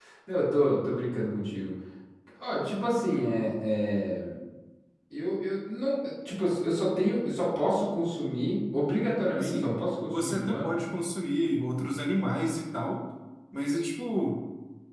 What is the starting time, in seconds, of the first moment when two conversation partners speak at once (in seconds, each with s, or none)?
9.3 s